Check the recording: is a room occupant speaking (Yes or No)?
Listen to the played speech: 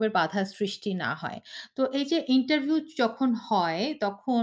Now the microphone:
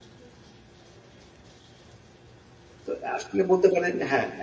Yes